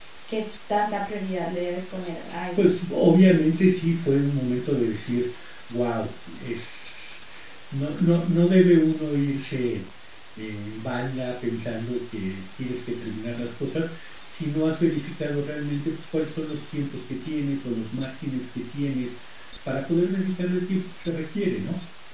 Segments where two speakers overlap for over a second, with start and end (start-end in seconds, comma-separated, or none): none